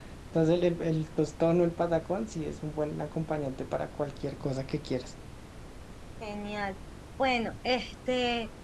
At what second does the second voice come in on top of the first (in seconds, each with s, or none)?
none